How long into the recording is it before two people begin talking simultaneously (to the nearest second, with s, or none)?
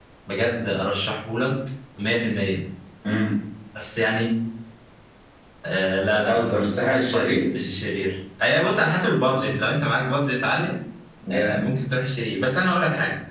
6 s